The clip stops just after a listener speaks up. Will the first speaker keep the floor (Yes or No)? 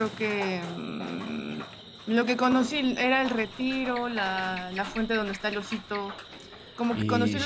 No